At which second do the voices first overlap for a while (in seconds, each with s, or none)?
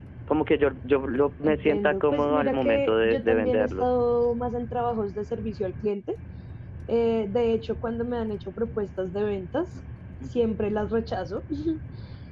1.4 s